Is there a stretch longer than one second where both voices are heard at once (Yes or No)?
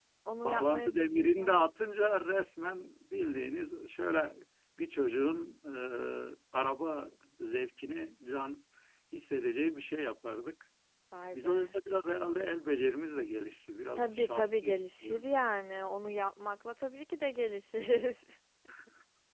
Yes